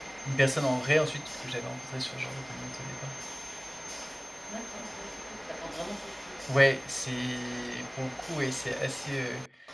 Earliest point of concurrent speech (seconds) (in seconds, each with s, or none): none